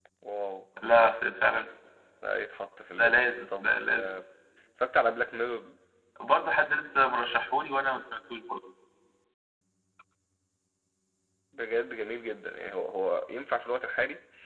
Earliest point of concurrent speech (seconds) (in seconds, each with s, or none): 3.0 s